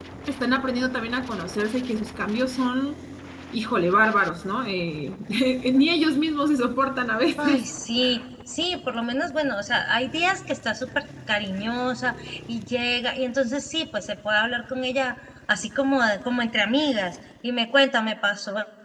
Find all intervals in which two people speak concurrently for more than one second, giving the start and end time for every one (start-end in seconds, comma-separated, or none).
none